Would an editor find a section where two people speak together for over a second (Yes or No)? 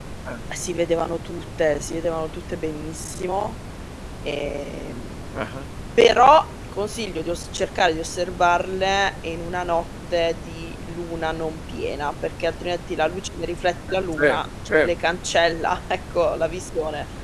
No